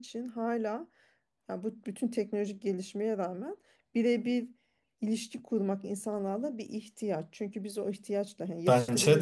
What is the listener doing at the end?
listening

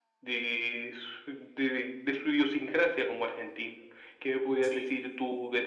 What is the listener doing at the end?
listening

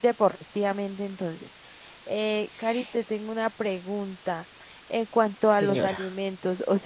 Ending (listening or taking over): listening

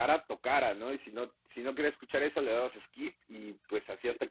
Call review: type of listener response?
listening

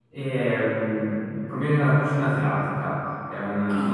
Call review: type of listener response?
listening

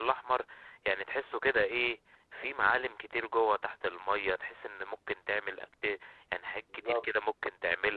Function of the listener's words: listening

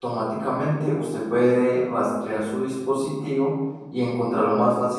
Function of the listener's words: taking over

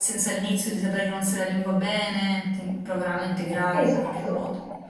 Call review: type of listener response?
taking over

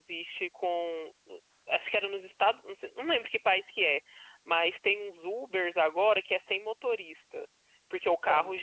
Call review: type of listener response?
listening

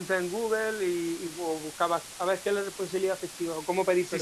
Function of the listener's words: taking over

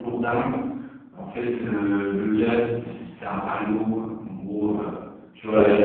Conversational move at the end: listening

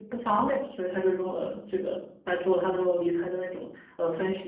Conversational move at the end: taking over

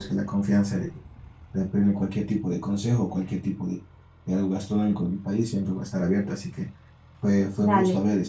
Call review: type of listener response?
listening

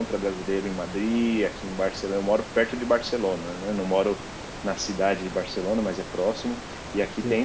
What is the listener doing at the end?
listening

